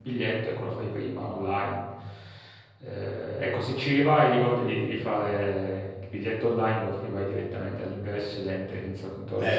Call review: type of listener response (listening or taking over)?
taking over